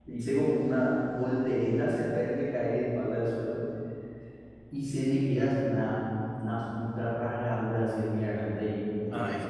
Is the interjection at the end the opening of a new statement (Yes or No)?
No